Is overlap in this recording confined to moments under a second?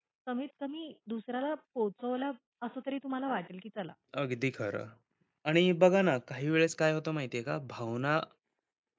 Yes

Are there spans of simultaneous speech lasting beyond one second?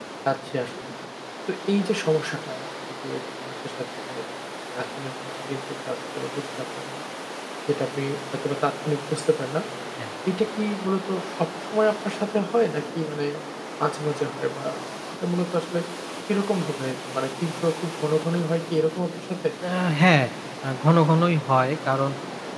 No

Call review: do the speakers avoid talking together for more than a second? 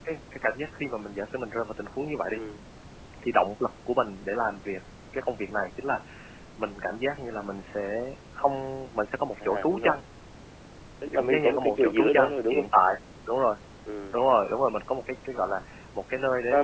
No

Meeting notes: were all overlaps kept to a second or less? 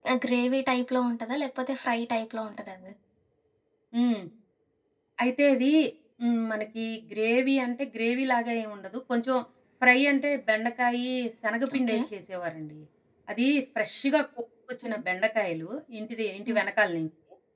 Yes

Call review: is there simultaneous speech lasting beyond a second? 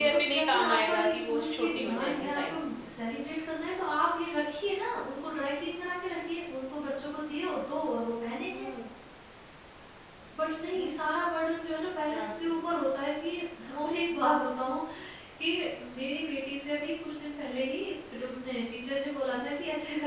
Yes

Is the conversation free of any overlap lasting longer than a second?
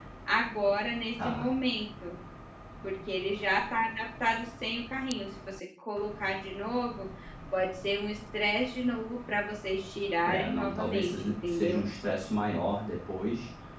No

